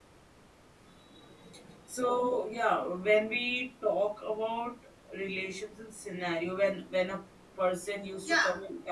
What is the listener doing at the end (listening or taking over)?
taking over